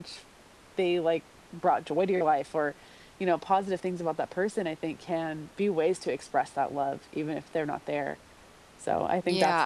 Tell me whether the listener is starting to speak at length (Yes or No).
Yes